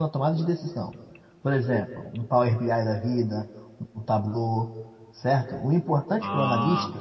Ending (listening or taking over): listening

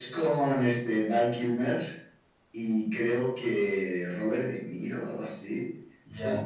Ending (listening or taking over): taking over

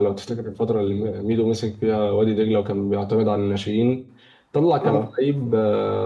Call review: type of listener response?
listening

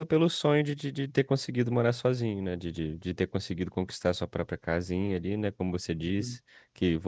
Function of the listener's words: listening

